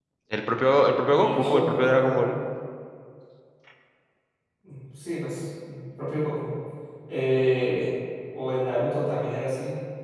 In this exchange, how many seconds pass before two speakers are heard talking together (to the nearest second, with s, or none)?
1 s